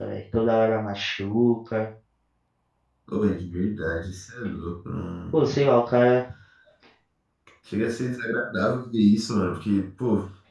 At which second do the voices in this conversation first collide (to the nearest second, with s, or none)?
none